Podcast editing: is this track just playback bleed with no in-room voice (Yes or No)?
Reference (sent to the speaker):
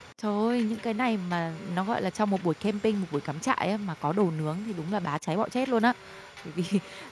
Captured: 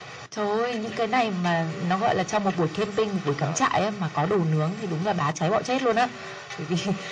No